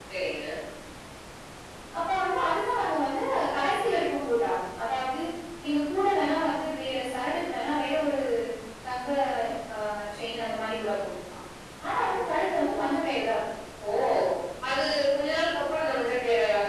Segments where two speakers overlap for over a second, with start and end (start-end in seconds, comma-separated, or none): none